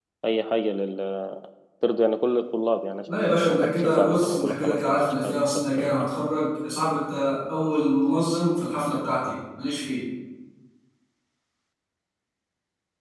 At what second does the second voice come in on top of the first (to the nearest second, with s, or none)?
3 s